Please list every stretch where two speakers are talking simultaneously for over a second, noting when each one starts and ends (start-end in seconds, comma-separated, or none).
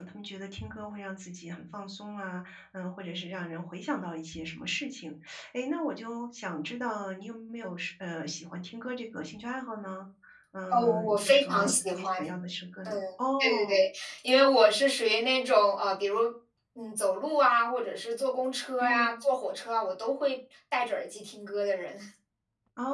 10.7-12.2